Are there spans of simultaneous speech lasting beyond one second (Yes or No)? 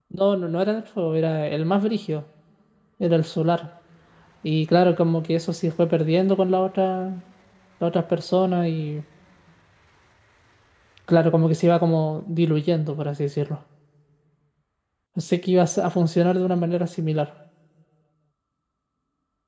No